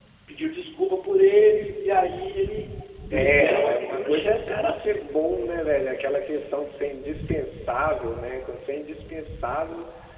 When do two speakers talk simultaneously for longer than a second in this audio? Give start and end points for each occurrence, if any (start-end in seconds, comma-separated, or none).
3.1-5.1